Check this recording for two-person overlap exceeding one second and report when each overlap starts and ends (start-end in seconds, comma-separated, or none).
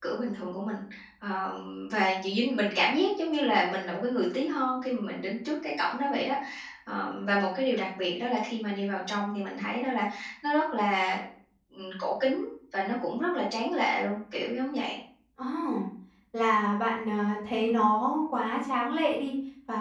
none